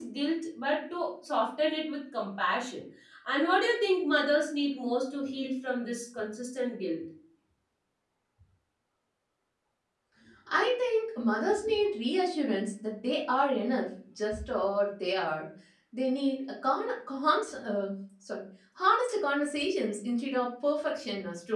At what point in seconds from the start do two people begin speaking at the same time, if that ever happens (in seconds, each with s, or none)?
none